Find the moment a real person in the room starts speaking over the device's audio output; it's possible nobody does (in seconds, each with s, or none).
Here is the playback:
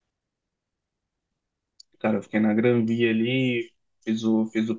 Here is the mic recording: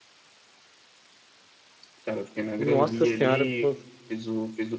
2.6 s